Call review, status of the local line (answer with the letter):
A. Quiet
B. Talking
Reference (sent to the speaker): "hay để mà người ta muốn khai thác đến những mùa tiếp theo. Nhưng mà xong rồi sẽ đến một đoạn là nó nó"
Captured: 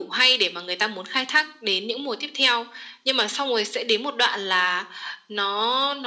A